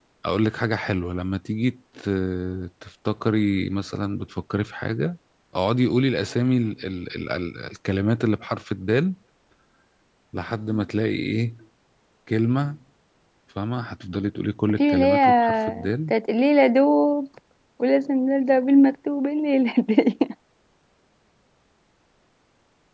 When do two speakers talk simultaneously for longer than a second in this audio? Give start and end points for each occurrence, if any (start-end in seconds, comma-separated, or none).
14.8-16.1